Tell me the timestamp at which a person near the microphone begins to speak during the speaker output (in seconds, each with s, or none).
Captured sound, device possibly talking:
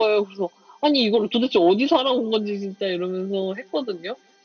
none